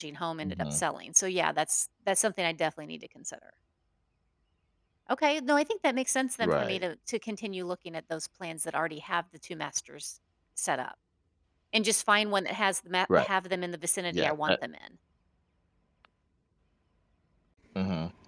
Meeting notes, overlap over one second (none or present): none